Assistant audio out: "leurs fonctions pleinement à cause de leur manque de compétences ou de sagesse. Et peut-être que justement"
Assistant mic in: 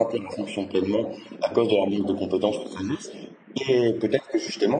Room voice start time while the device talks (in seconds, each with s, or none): none